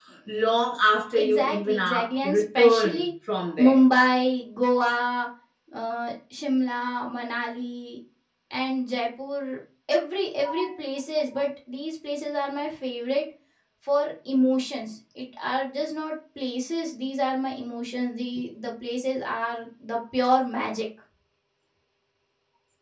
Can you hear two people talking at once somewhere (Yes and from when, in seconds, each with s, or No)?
Yes, from 1.1 s